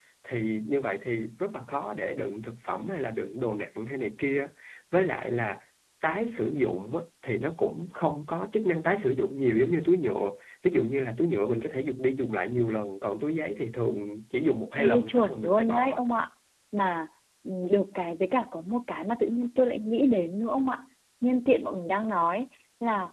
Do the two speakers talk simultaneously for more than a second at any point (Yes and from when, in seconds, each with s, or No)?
Yes, from 14.8 s